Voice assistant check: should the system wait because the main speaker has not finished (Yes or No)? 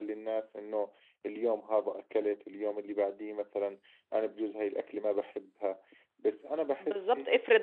No